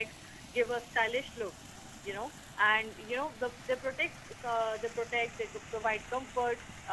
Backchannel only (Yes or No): Yes